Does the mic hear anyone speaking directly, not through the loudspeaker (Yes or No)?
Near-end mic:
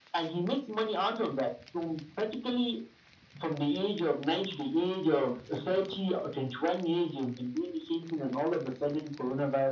No